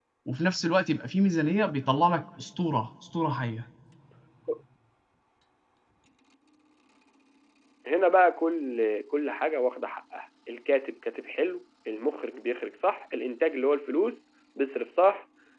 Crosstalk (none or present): none